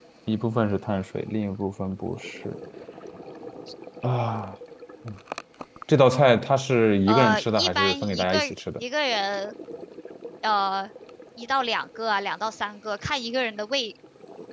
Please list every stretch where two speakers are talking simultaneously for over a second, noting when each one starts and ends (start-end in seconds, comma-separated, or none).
7.1-8.3